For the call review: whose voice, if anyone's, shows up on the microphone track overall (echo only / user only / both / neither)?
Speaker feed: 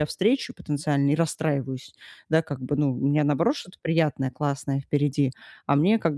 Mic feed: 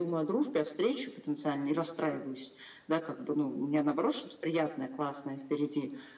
echo only